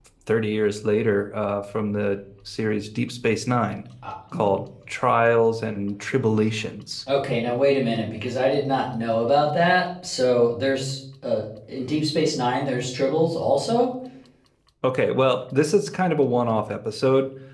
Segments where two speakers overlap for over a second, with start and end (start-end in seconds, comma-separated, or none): none